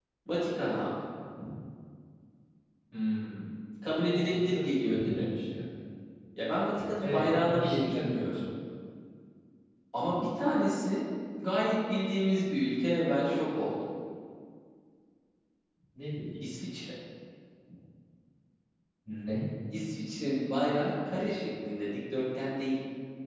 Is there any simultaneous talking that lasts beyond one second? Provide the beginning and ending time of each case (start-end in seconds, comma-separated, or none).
4.0-5.2, 7.0-8.4